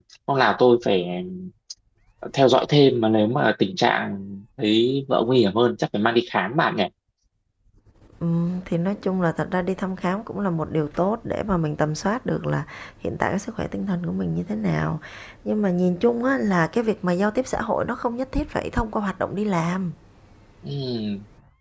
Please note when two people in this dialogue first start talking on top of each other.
none

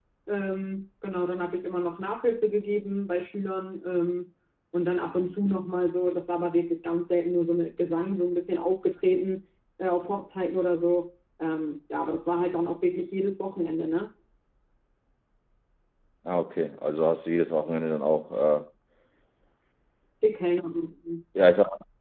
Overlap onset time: none

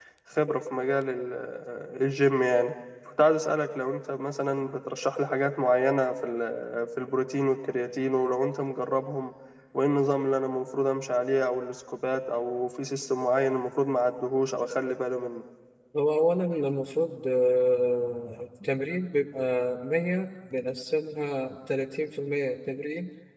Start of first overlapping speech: none

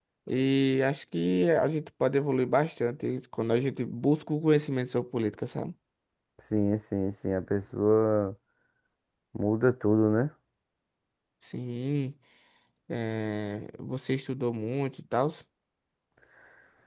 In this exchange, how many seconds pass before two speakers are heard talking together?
none

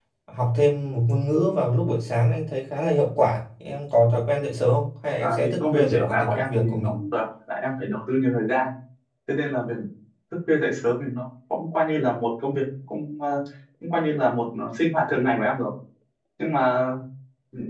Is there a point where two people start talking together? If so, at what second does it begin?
5 s

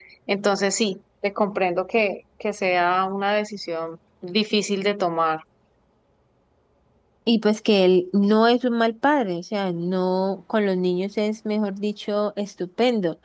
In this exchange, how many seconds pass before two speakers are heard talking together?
none

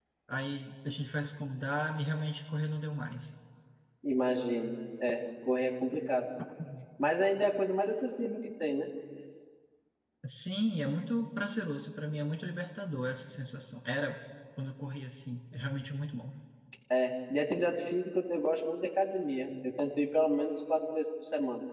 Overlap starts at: none

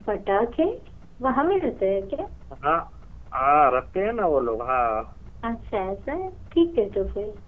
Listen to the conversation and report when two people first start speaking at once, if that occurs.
none

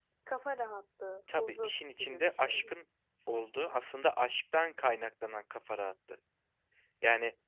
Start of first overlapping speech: 1 s

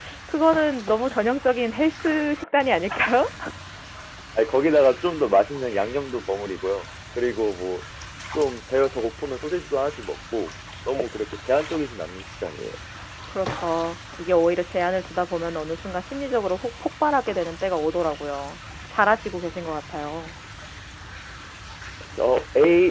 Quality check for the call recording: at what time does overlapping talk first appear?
none

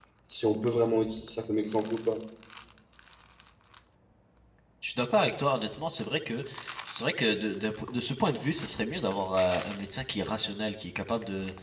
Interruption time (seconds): none

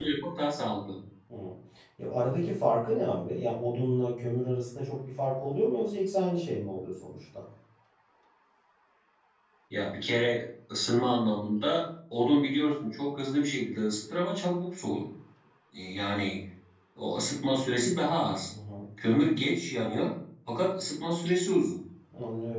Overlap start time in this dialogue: none

